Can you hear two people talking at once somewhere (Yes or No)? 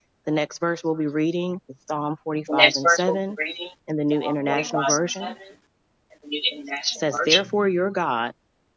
Yes